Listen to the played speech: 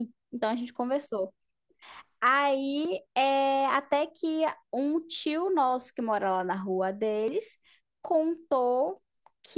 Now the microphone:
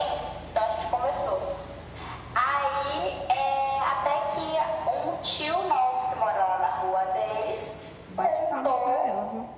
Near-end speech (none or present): present